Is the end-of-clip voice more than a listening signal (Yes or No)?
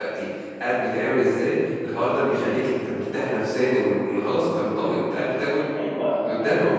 Yes